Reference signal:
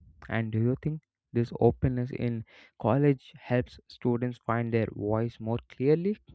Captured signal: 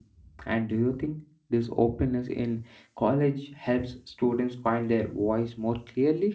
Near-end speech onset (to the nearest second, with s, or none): none